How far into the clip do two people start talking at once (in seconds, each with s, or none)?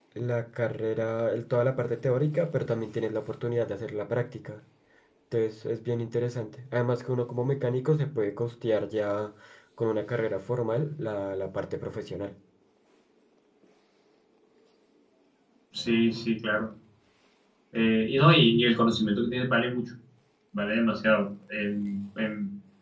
none